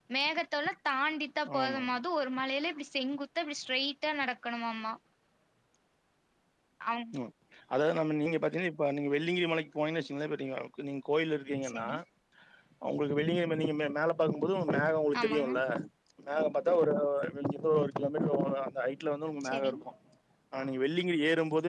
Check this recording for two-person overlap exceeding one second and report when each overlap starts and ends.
none

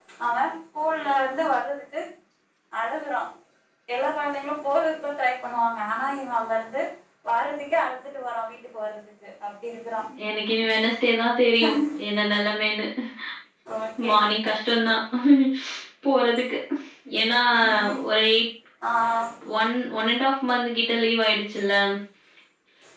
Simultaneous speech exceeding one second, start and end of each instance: none

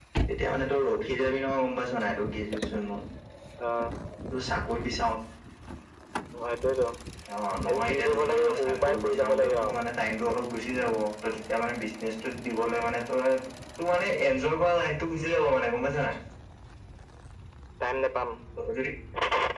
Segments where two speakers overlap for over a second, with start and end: 7.7-9.8

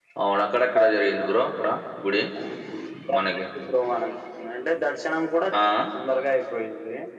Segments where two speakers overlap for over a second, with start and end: none

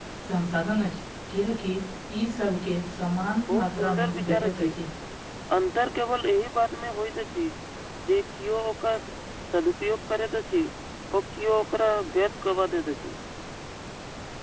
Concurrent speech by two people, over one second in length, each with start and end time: 3.5-4.7

